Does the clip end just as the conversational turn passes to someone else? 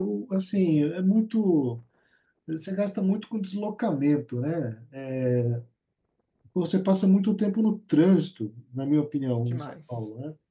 No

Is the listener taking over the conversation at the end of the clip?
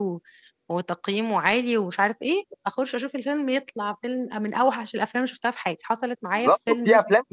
Yes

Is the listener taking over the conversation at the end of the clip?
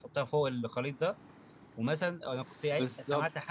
No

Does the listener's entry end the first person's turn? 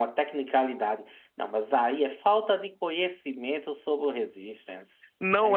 Yes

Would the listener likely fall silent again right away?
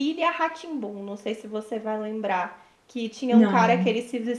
Yes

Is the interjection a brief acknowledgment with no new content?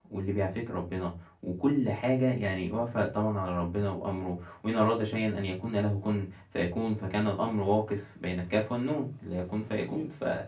Yes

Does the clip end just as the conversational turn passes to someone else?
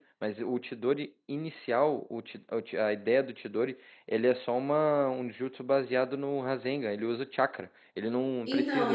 Yes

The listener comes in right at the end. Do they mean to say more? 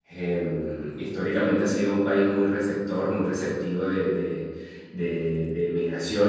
No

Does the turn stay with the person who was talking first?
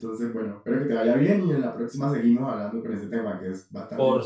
No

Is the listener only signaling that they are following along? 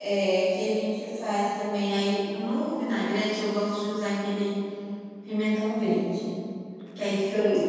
Yes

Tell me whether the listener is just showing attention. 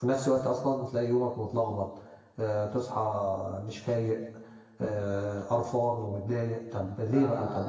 No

